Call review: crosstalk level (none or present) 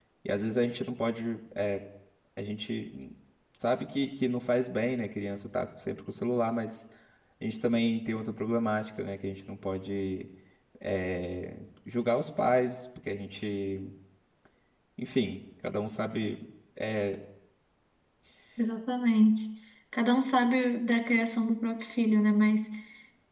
none